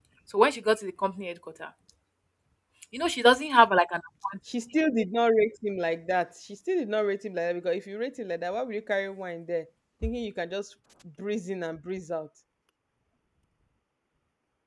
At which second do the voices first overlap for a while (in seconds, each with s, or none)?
none